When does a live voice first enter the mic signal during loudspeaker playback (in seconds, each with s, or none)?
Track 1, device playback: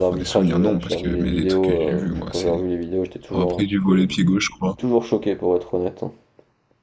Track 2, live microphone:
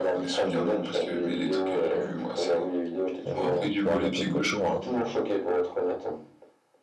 3.2 s